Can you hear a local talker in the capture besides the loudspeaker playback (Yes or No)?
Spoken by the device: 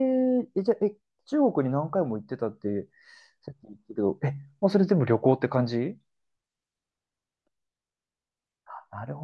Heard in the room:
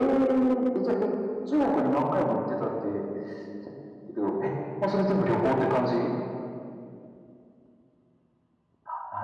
No